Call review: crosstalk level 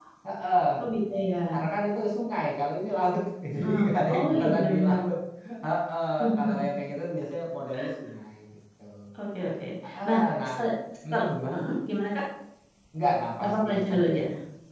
present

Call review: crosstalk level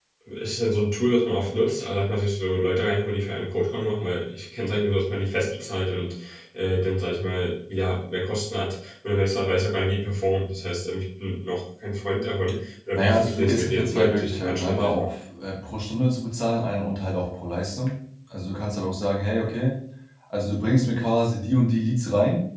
present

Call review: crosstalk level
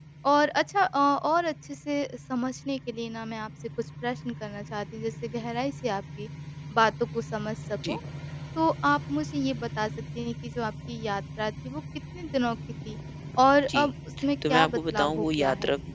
present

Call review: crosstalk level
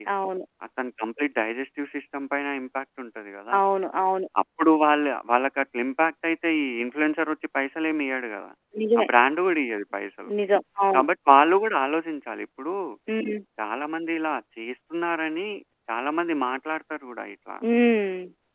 none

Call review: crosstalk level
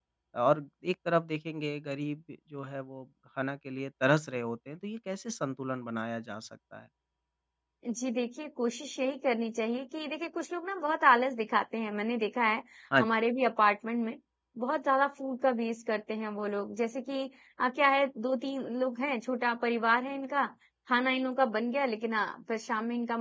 none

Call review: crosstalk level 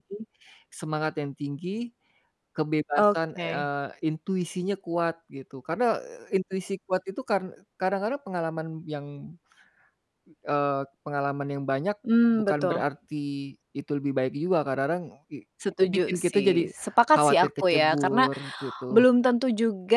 present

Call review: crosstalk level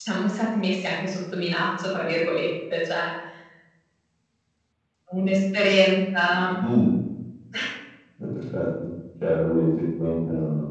none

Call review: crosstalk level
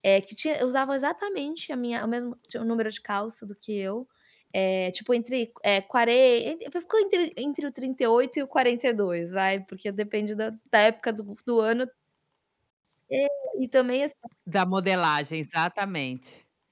none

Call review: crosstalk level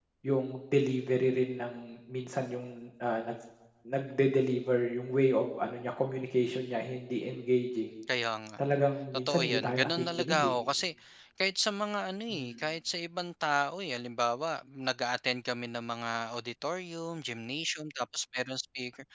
present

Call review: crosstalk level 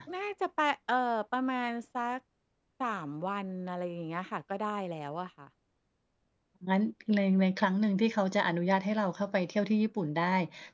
none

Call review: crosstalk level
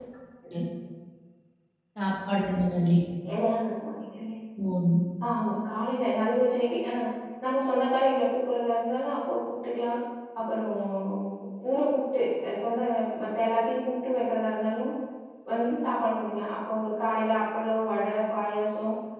none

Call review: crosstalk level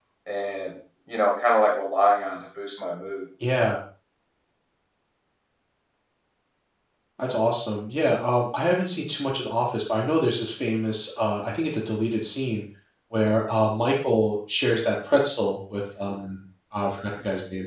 none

